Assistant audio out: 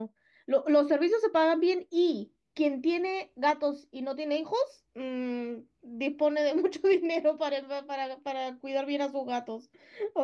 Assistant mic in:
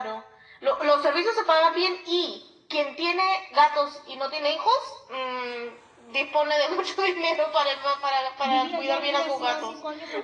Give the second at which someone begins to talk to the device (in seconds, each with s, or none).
8.4 s